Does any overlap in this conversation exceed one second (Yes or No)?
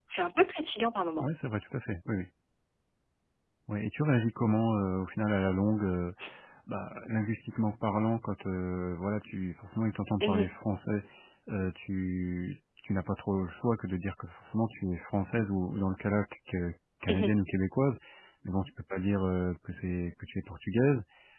No